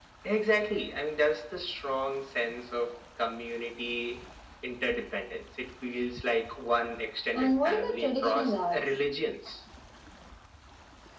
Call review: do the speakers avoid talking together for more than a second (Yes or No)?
No